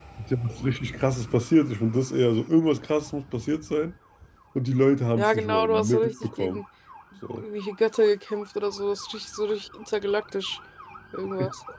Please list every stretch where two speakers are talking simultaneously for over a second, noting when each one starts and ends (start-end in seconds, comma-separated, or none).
5.2-6.6